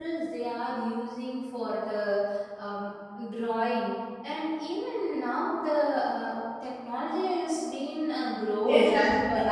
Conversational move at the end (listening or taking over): taking over